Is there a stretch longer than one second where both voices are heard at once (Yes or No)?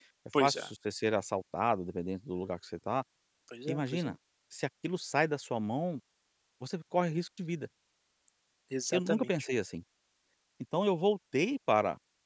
No